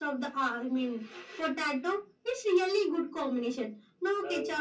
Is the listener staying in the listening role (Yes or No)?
Yes